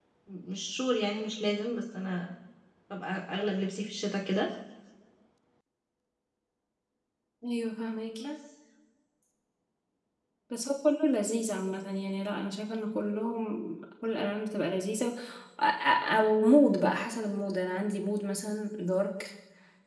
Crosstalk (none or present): none